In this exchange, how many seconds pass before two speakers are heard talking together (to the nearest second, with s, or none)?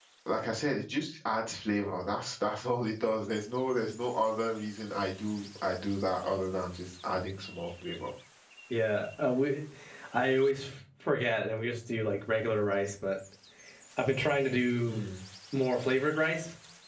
none